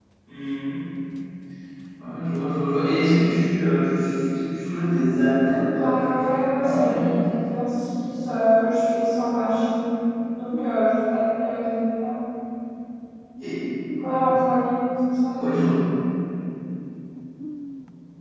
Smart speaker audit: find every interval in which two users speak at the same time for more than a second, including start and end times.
5.8-7.1

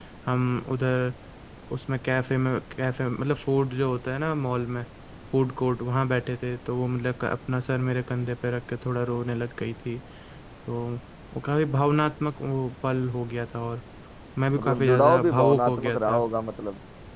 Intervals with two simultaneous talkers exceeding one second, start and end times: 14.6-16.2

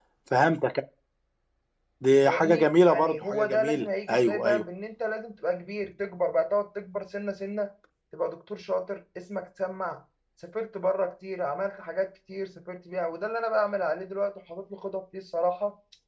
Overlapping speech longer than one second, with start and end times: 2.2-4.6

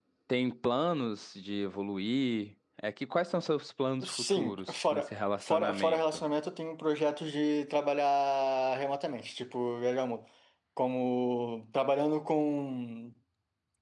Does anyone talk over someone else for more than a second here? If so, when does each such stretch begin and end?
4.0-6.2

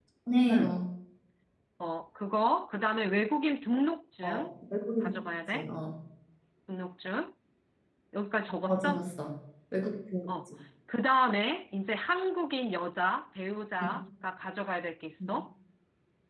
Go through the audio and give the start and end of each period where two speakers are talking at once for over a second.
none

